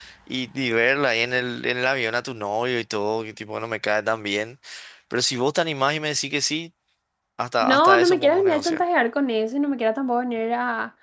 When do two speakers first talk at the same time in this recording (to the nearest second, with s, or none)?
8 s